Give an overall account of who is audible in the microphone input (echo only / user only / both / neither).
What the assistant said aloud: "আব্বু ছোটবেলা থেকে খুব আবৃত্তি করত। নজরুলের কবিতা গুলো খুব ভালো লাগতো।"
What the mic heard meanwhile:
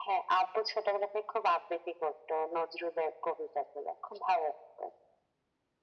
echo only